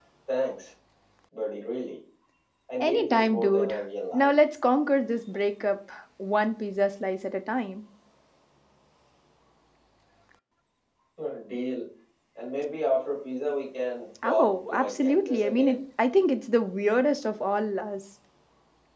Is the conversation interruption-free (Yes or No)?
No